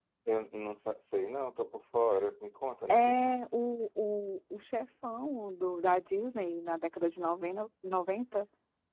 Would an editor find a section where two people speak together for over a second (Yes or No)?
No